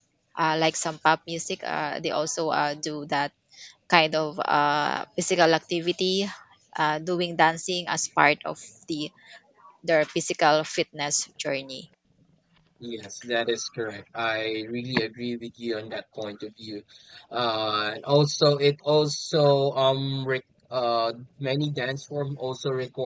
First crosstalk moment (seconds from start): none

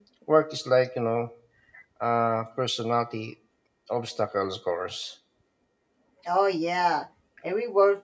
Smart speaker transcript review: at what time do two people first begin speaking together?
none

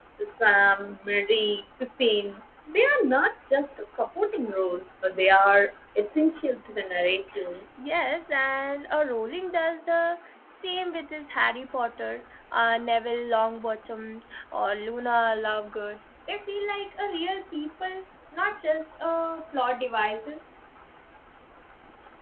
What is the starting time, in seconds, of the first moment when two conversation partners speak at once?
none

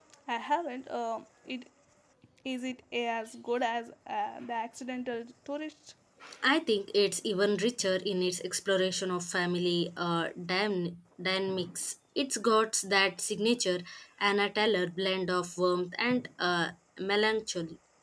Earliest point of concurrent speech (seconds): none

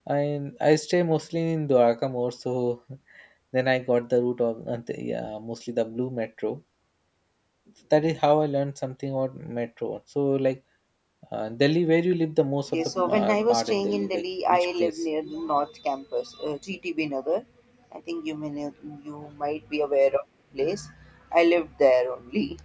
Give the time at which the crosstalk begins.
12.7 s

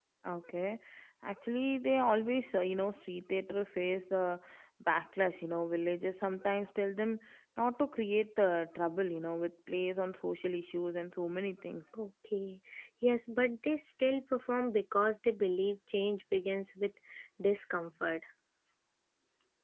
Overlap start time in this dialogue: none

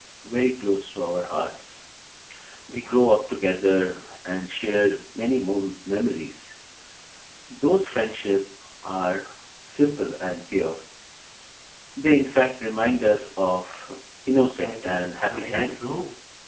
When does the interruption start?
14.3 s

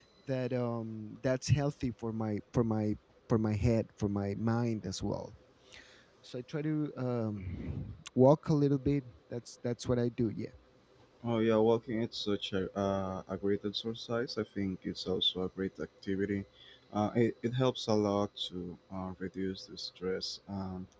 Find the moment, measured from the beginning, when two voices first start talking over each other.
none

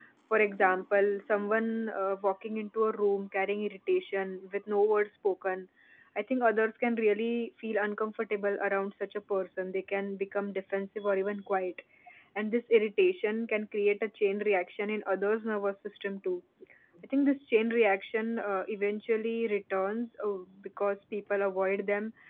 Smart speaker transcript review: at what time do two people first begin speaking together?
none

